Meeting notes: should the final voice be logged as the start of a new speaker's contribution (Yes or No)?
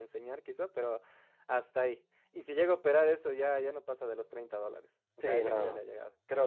Yes